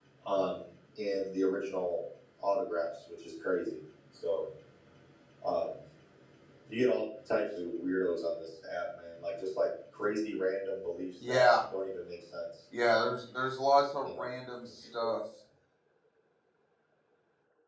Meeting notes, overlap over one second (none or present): none